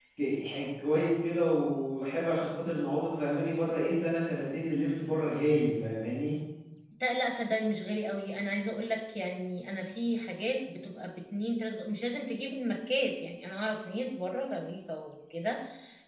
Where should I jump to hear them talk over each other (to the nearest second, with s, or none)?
none